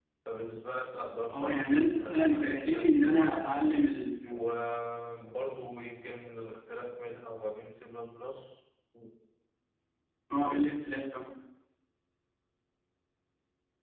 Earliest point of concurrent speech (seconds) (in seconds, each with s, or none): 1.3 s